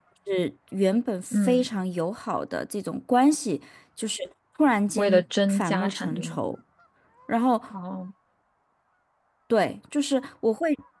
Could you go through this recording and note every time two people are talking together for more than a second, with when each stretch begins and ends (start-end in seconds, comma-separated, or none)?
5.0-6.4